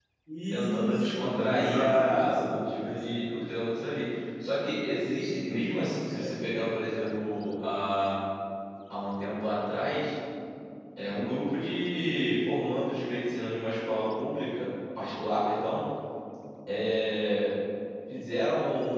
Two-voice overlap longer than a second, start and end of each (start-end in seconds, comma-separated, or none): 0.5-3.1